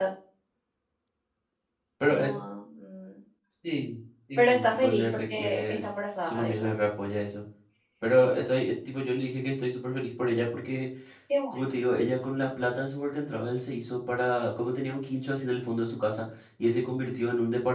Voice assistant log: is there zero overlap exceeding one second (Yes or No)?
No